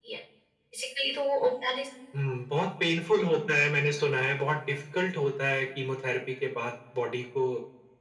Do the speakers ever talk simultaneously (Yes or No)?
No